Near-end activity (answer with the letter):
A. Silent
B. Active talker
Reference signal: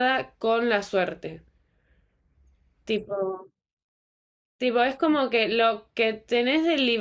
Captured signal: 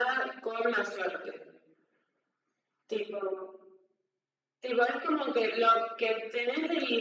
A